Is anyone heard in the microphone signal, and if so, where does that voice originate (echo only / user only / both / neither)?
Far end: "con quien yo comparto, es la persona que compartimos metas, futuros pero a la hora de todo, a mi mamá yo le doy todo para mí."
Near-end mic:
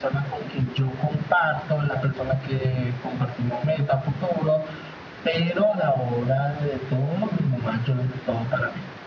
echo only